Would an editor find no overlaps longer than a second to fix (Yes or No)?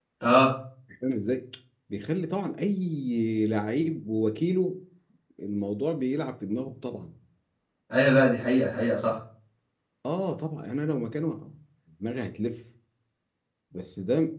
Yes